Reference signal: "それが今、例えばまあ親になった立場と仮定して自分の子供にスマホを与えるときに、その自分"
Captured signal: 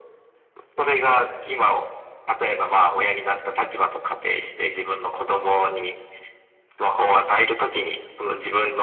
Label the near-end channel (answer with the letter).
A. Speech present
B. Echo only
B